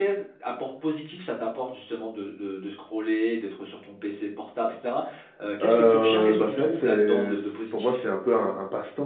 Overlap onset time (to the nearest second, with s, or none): 6 s